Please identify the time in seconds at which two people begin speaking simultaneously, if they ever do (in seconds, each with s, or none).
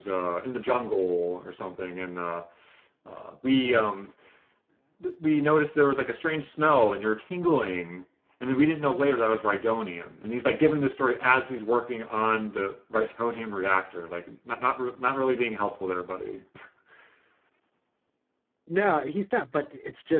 none